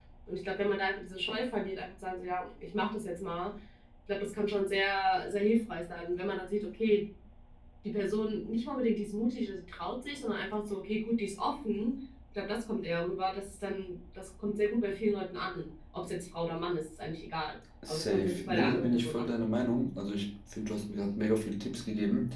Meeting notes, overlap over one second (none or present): present